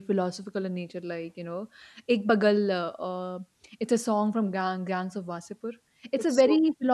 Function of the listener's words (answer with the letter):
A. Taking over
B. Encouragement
B